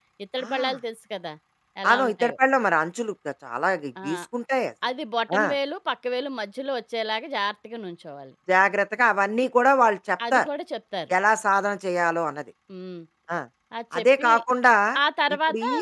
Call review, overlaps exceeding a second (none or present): none